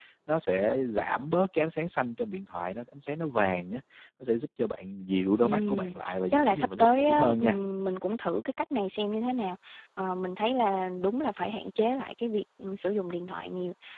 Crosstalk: present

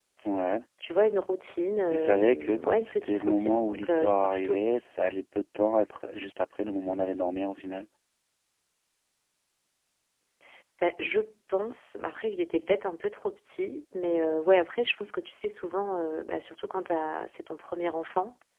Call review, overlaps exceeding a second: present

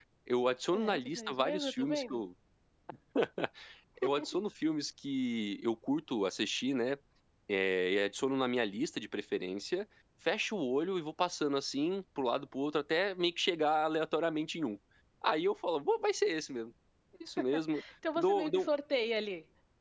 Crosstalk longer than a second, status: present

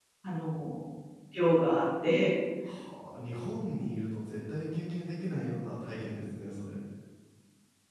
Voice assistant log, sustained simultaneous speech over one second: none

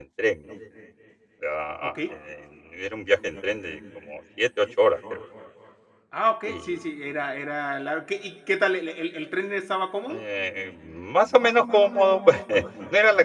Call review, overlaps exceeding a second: none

